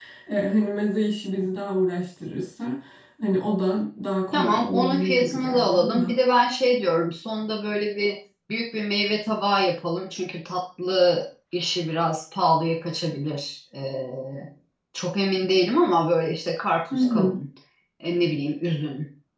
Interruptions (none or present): present